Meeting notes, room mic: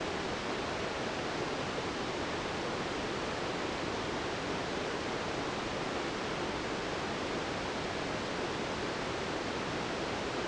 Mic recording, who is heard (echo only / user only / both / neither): neither